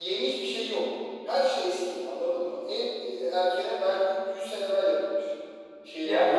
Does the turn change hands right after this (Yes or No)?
Yes